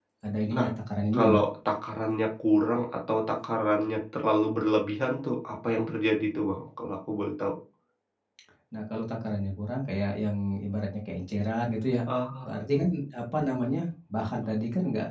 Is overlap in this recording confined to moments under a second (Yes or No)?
Yes